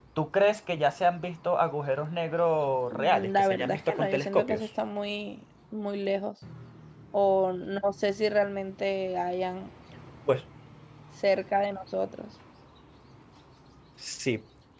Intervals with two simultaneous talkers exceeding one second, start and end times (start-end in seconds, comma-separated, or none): 2.9-4.7